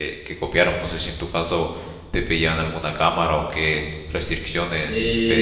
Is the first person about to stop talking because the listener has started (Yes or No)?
Yes